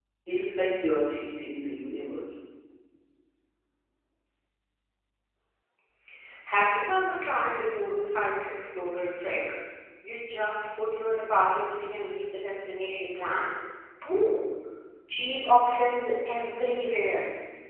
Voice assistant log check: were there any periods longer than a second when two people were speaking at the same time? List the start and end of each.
none

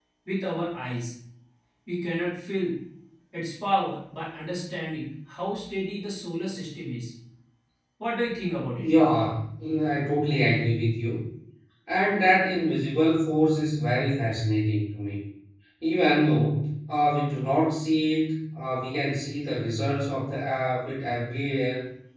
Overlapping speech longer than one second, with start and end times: none

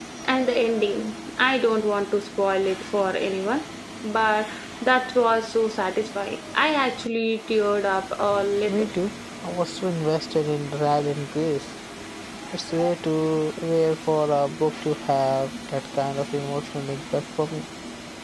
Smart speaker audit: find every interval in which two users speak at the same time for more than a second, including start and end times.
none

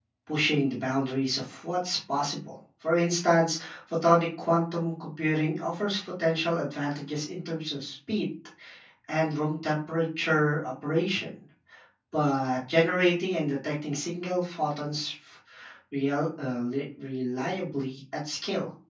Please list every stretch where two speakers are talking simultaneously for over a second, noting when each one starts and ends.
none

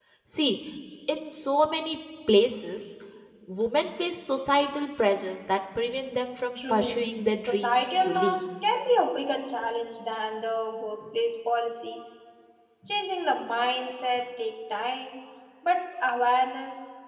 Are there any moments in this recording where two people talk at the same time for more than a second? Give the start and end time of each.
6.6-8.4

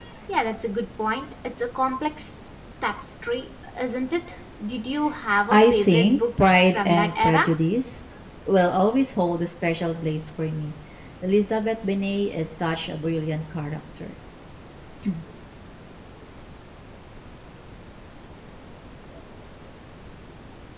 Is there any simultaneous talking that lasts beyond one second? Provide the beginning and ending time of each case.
5.5-7.4

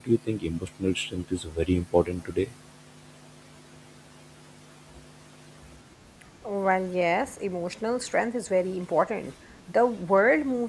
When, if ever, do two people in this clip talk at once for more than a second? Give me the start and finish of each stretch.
none

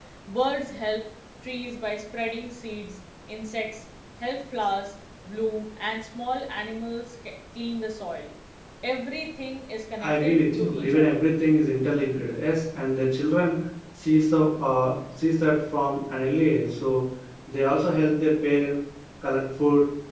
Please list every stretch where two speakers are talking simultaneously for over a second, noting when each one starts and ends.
10.0-11.2

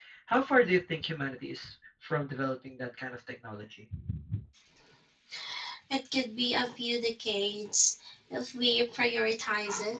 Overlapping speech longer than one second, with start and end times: none

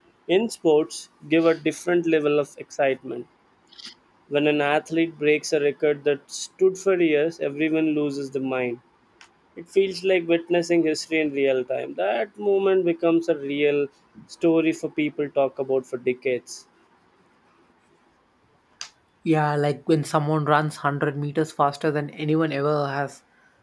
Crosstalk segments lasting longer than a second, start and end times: none

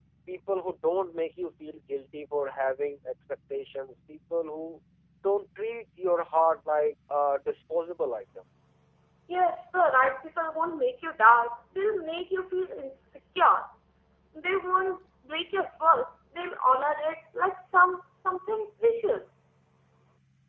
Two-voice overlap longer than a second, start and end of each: none

